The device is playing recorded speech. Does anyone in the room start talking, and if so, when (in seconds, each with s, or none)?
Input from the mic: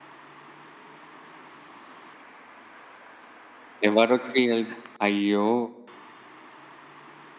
3.9 s